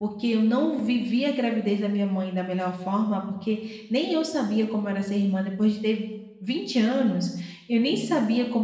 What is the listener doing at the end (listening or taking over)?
listening